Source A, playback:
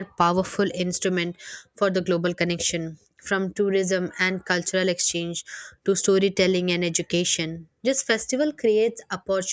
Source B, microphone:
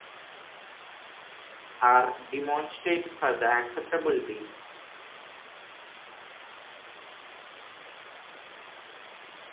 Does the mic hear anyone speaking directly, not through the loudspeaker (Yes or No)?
Yes